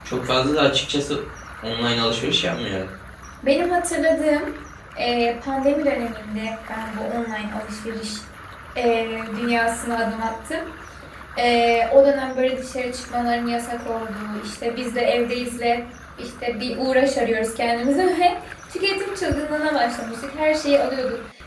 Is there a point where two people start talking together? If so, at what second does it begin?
none

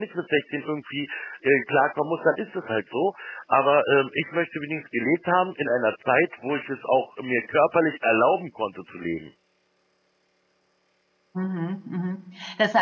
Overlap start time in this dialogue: none

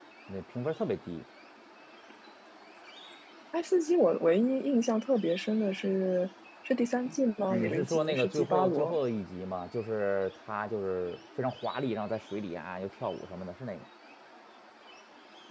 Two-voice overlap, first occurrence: 7 s

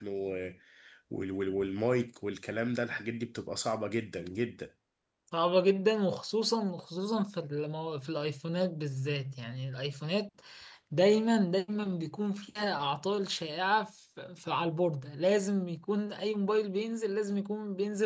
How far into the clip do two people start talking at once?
none

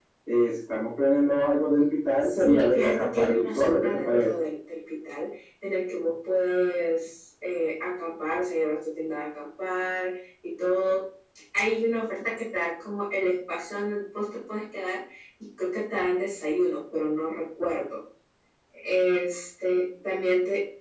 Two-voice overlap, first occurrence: 2 s

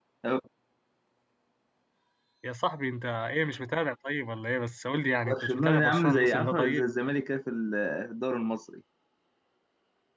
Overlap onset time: 5 s

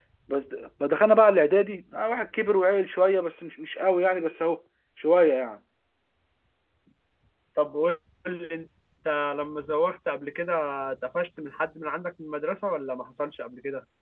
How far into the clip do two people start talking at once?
none

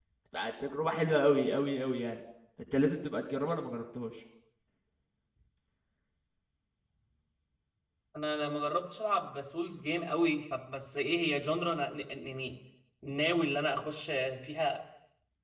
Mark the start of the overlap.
none

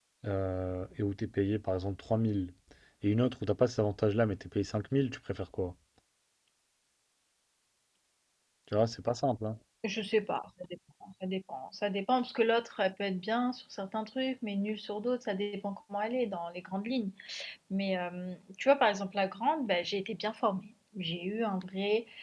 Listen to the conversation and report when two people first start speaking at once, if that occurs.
none

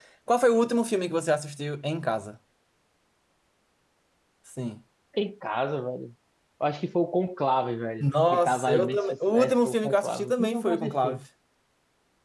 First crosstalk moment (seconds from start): 8 s

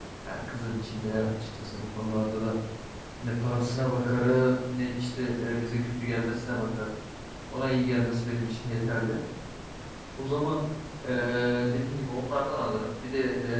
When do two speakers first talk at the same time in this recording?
none

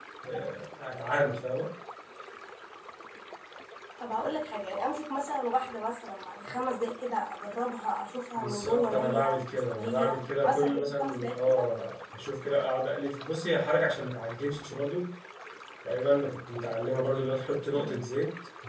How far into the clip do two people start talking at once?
8 s

